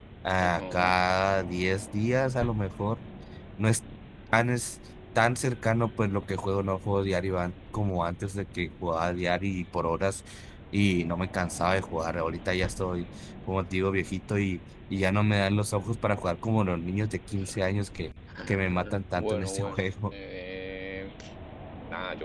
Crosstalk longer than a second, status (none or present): present